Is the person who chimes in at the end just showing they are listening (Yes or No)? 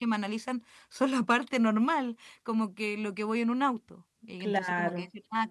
Yes